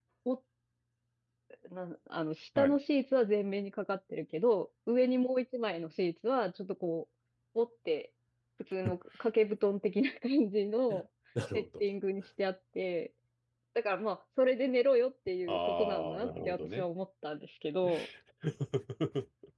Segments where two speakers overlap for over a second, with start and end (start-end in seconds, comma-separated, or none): 15.5-16.8